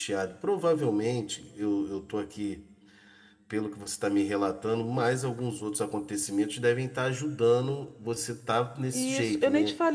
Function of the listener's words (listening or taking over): taking over